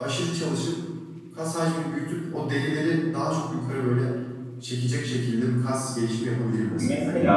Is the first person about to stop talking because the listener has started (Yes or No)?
Yes